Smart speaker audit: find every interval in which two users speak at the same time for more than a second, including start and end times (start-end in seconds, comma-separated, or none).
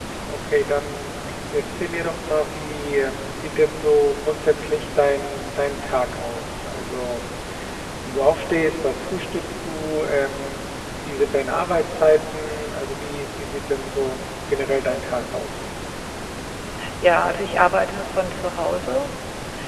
none